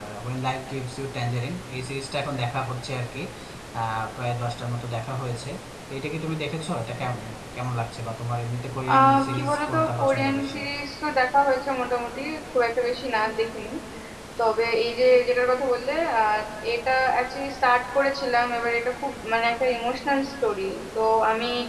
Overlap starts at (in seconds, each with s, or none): 8.9 s